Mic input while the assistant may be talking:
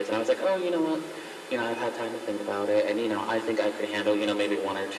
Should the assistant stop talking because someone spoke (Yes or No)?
No